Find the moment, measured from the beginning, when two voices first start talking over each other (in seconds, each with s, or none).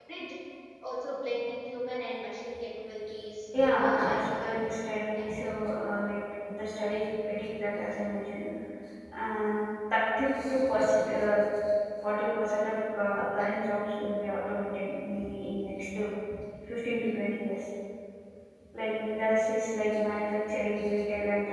3.5 s